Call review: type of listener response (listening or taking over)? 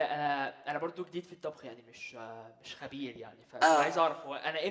listening